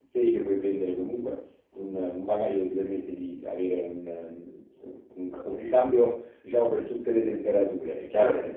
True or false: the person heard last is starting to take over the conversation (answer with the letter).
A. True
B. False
B